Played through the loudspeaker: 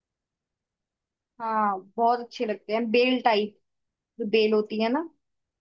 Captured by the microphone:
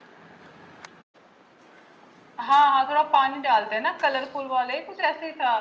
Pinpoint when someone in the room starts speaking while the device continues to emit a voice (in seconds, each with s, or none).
2.4 s